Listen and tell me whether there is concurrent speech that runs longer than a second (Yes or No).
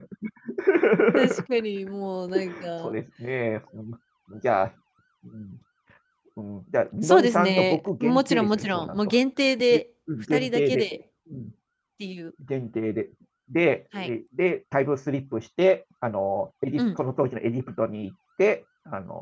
Yes